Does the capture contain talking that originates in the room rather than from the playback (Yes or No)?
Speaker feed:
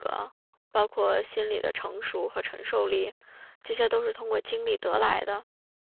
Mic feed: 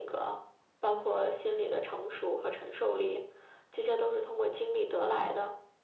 No